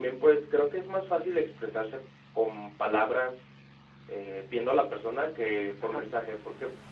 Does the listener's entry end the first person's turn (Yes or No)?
No